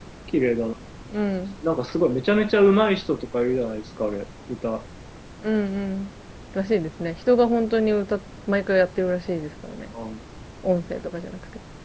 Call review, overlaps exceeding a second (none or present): none